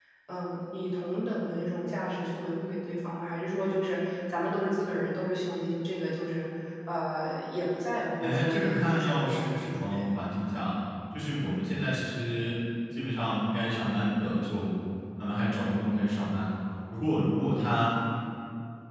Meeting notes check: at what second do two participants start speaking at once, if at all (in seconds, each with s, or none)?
8.2 s